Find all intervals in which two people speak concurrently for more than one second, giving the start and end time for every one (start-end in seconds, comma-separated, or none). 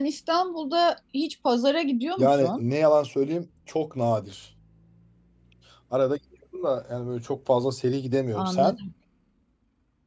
none